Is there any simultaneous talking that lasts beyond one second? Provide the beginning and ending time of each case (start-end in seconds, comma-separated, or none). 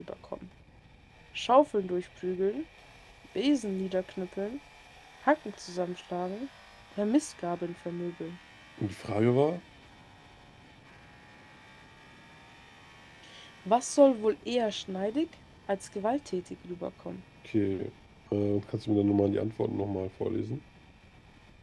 none